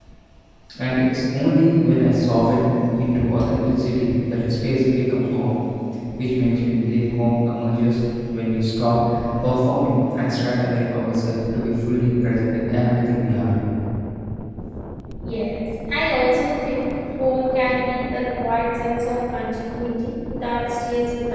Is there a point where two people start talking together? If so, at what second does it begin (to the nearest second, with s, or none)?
none